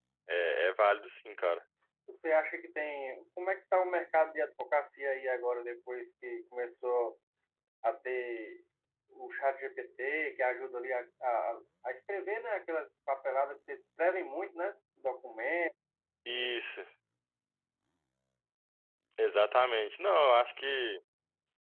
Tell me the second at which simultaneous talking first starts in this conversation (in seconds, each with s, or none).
none